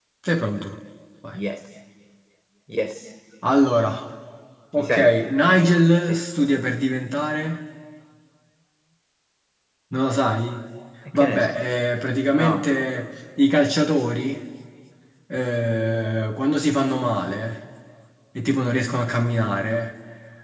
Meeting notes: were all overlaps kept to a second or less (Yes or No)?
Yes